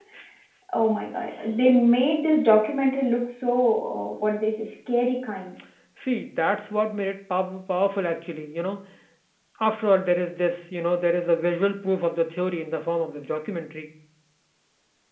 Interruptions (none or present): none